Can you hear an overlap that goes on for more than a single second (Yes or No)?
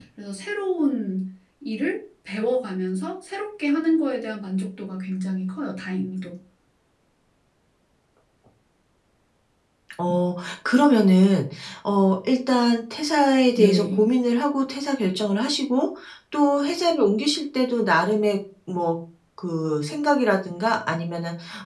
No